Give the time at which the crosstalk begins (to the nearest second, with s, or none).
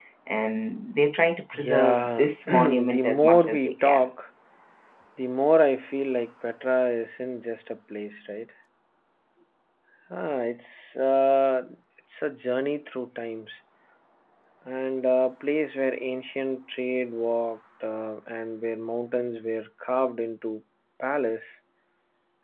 2 s